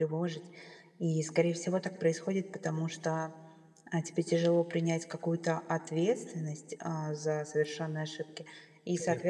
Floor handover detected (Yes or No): No